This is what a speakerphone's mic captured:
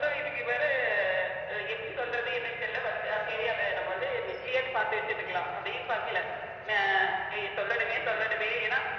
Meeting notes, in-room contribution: none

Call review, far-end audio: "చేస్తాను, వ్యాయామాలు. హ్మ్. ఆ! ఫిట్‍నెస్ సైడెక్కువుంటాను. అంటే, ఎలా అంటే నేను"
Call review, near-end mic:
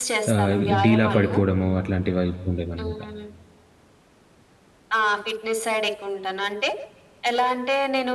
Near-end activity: present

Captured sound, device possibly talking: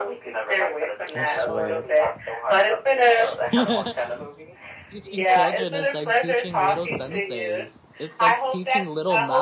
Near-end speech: present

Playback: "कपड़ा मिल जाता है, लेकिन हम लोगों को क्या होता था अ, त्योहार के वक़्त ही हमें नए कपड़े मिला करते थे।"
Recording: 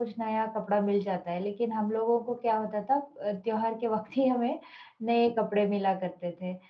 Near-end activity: none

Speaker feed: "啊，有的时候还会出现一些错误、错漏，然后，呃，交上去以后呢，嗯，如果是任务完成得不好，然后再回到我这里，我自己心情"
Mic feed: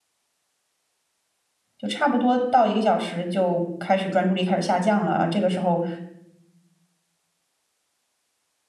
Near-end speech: present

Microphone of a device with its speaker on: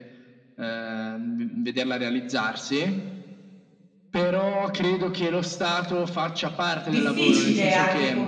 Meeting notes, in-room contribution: present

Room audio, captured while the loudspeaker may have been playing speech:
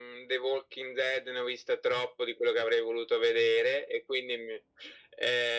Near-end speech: none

